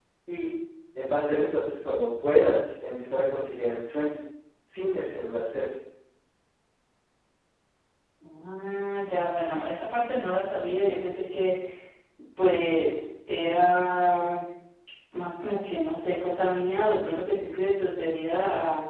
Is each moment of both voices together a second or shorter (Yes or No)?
Yes